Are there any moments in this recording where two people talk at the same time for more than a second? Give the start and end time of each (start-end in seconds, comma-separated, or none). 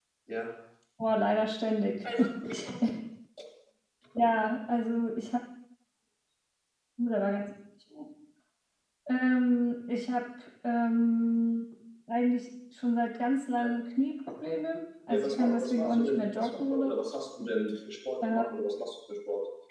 15.1-16.9